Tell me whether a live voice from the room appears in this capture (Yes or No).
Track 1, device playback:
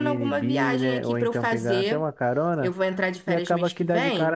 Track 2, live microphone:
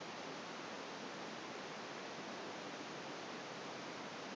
No